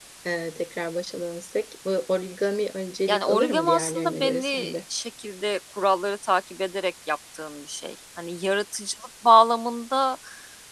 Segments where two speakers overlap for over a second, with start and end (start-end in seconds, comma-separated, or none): 3.1-4.8